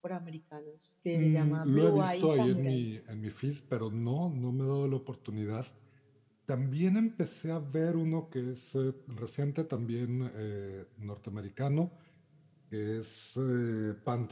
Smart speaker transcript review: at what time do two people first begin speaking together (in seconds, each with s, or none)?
1.1 s